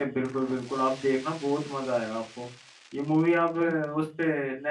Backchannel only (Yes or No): Yes